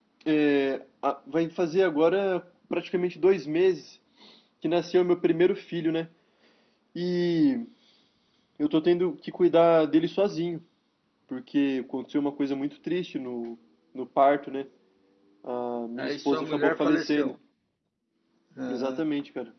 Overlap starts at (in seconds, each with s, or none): 16.0 s